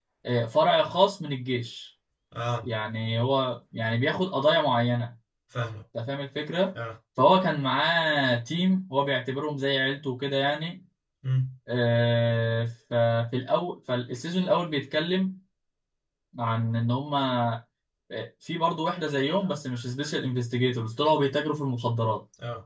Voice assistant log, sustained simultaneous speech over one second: none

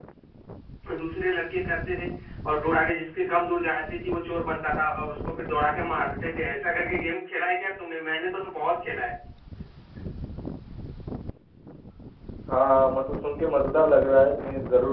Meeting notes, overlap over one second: none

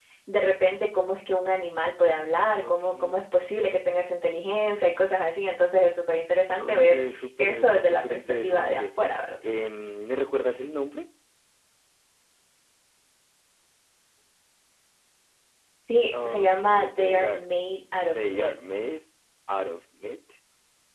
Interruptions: present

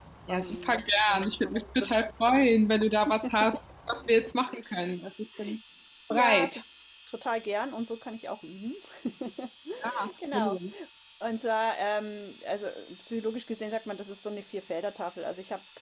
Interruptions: present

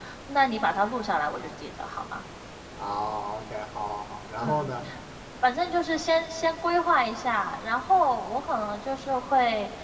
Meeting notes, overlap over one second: none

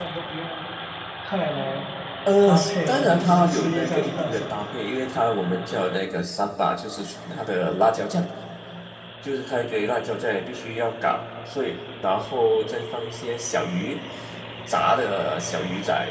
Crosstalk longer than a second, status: present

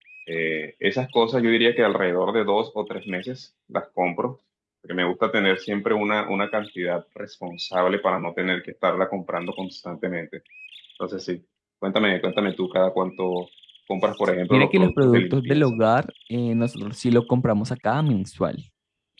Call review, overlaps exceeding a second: present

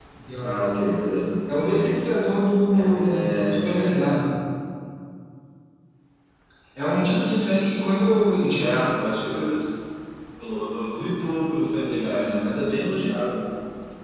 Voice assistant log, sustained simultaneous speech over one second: present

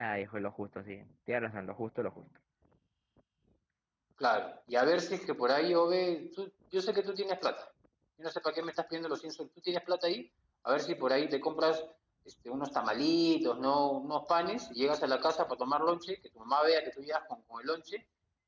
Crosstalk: none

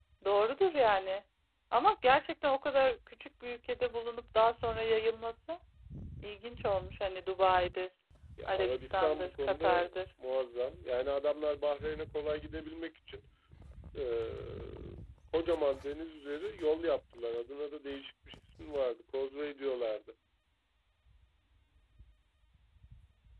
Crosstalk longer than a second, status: present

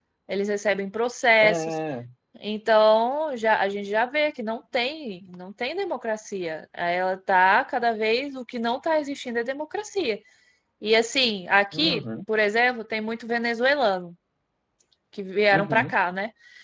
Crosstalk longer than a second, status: none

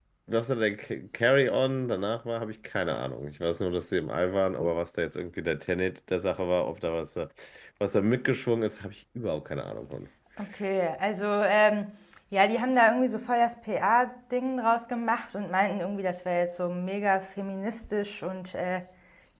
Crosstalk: none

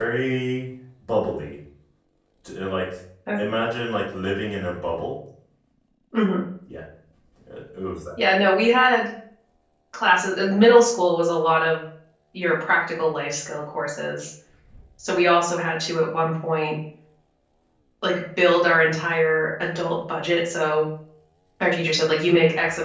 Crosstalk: none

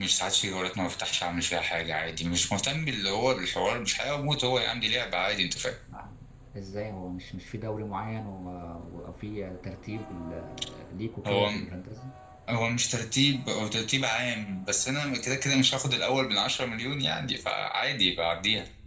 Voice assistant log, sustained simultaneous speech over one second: none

